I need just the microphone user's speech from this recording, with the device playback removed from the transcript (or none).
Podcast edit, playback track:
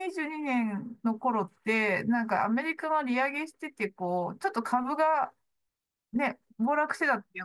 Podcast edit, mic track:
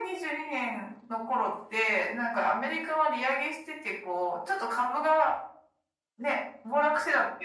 none